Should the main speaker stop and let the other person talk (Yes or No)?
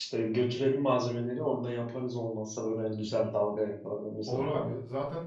Yes